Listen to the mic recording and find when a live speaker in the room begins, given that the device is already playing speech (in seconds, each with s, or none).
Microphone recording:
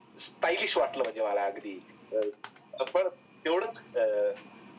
none